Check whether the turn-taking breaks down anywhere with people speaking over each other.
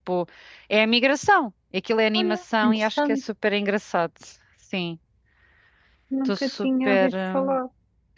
Yes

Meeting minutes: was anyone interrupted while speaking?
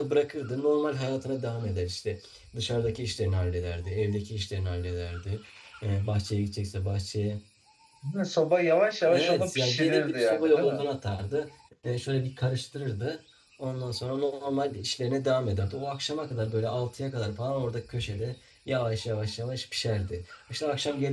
Yes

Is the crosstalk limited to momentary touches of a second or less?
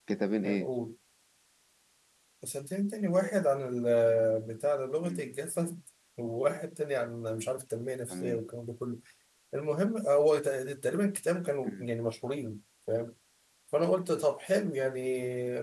Yes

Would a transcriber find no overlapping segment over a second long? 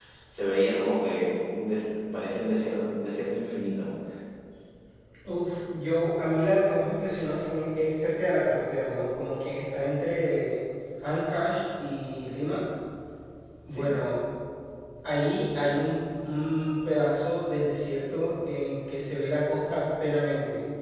Yes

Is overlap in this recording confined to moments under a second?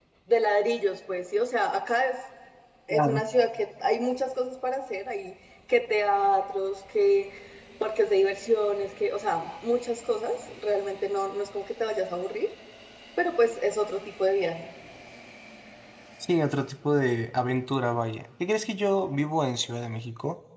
Yes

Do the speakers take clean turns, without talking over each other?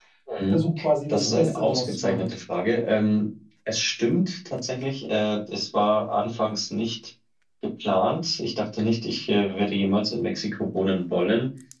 No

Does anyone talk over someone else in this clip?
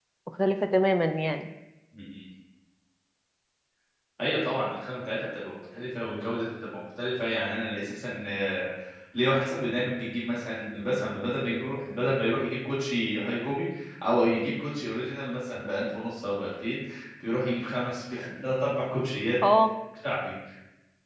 No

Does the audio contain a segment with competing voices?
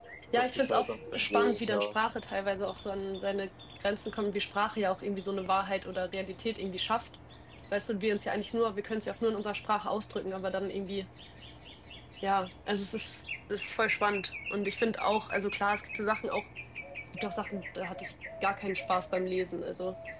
Yes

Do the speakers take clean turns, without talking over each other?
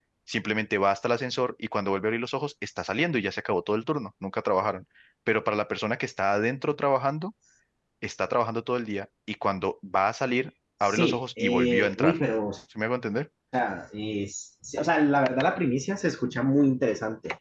No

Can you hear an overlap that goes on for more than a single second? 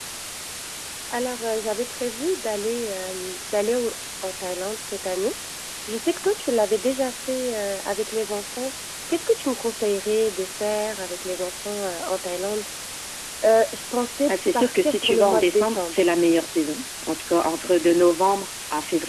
Yes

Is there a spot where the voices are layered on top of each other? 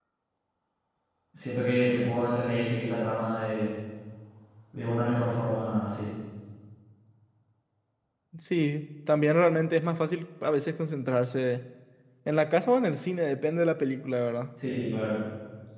No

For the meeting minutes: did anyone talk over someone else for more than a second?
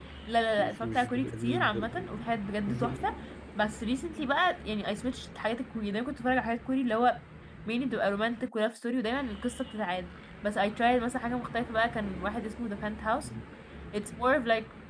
Yes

